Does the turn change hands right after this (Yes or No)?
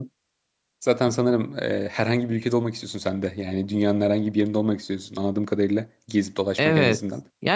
Yes